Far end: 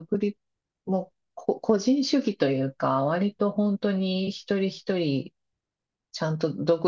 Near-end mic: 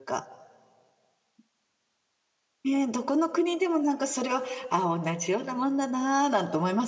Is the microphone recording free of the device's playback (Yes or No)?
Yes